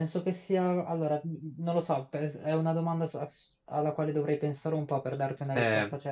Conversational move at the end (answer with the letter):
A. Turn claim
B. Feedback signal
B